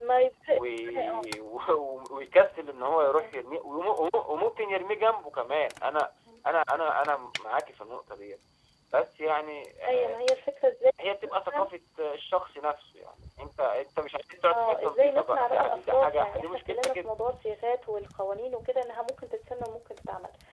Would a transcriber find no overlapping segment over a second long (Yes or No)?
No